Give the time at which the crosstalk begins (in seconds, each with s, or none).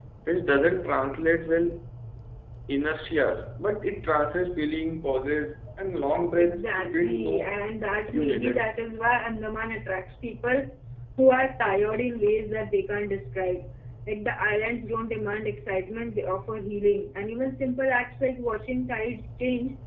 6.3 s